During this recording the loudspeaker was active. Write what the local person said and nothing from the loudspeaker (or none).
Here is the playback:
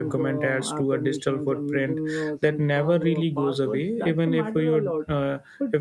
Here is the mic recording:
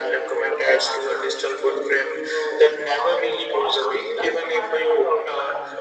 none